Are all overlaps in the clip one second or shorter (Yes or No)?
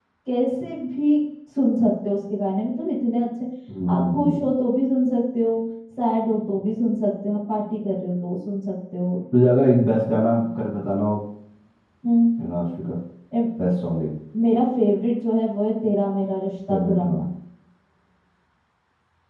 Yes